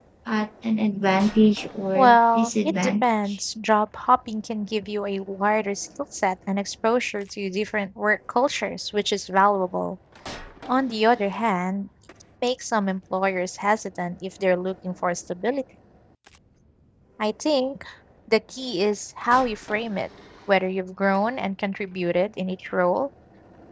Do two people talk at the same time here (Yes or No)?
Yes